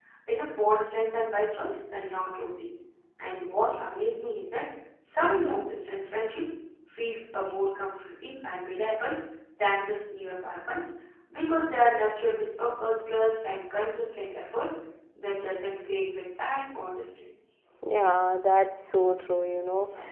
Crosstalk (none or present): none